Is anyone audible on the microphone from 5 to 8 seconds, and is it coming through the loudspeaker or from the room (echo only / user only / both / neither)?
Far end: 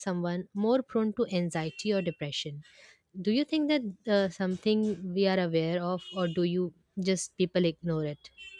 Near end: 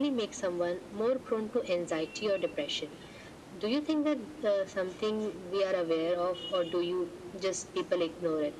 echo only